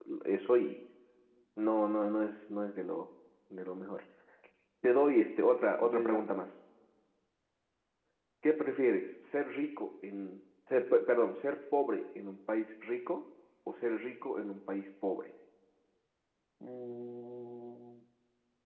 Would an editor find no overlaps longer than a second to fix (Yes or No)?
Yes